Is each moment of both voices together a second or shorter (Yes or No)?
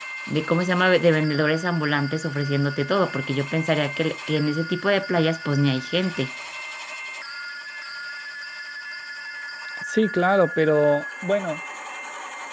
Yes